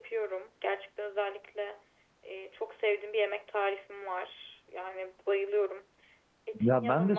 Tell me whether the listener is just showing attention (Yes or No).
No